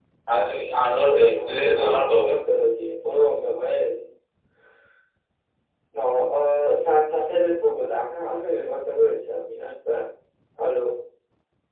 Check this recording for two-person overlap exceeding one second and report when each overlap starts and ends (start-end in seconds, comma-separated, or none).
1.1-2.4